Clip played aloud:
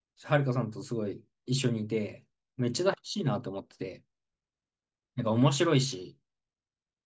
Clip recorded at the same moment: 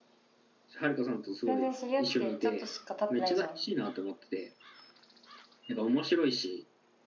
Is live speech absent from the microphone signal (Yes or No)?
No